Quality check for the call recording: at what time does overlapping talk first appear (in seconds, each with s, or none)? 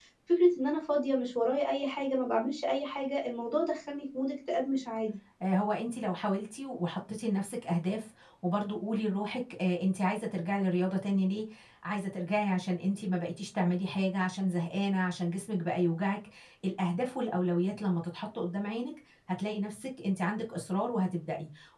none